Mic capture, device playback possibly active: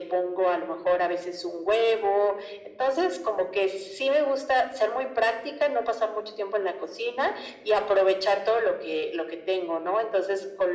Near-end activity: none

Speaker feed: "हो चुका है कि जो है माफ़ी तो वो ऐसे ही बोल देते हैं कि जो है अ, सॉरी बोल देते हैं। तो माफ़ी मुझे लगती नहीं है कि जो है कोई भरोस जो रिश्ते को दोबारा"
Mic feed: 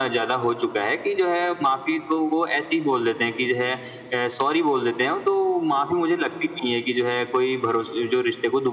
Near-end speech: none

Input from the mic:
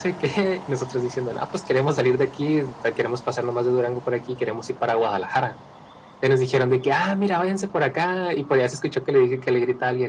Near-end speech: none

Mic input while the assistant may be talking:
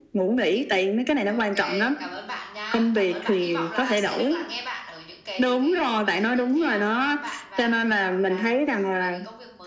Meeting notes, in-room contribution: present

